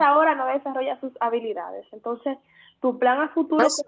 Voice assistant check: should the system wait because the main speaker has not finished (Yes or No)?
Yes